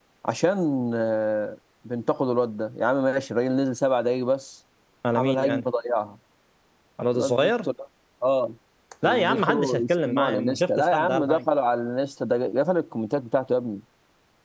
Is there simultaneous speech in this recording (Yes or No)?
Yes